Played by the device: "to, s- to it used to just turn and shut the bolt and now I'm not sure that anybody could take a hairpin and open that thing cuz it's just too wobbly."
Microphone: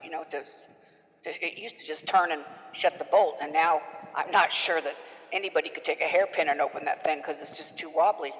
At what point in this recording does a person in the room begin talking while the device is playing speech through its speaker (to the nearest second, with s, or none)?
none